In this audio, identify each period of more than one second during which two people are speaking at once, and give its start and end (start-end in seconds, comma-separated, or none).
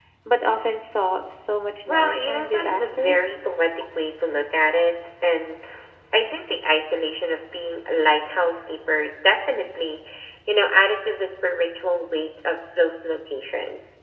1.9-3.2